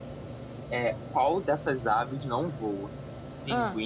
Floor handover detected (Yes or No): No